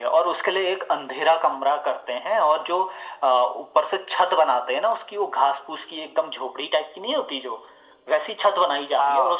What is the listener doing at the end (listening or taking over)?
listening